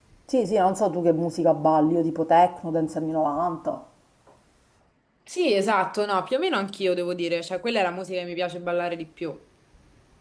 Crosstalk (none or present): none